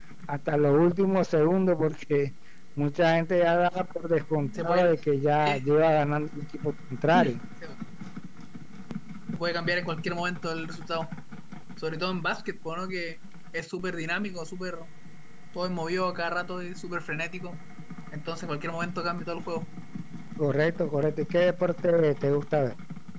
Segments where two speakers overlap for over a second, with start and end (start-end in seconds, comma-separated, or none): none